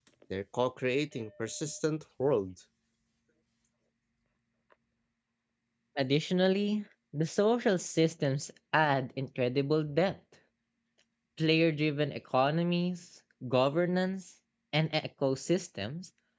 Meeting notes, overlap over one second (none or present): none